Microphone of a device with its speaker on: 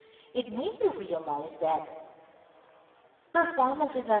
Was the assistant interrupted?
Yes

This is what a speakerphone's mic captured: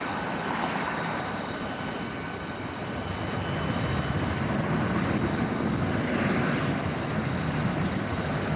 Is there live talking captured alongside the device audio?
No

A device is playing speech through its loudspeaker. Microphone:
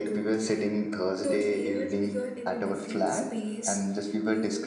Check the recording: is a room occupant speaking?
No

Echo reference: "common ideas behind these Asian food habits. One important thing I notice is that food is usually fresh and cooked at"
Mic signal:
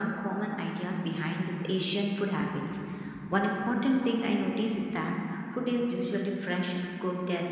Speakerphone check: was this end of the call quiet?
Yes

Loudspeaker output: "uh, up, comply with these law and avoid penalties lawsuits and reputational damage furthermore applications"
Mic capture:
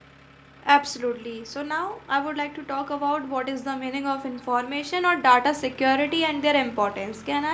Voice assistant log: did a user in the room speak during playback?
Yes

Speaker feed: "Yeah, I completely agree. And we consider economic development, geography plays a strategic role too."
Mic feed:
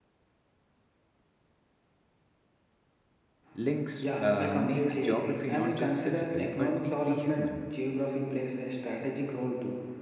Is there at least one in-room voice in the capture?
Yes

